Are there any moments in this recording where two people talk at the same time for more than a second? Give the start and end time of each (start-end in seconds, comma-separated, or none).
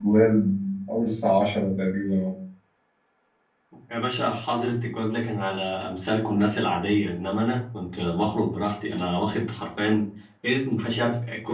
none